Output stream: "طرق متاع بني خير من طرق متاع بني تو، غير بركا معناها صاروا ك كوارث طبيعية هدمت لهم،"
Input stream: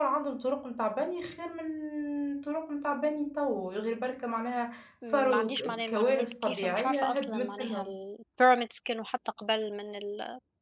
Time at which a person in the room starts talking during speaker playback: 5.0 s

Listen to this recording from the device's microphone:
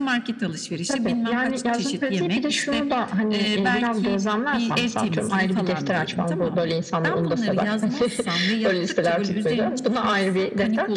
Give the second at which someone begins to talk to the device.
none

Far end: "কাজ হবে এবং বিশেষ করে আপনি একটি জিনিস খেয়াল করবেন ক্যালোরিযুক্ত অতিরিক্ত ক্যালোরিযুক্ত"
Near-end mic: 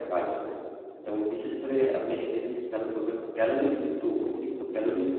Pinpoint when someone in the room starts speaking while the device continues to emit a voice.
none

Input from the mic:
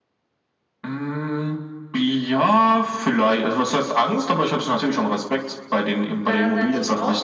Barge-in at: 6.2 s

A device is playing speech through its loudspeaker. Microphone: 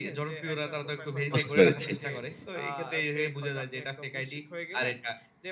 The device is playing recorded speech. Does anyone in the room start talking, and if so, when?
1.3 s

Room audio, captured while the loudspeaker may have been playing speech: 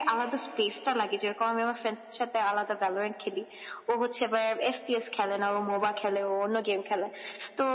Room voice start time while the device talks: none

